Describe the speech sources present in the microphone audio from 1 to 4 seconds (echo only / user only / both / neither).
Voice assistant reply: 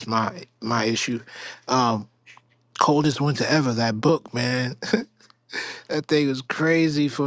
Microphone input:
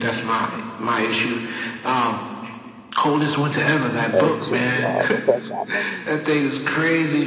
echo only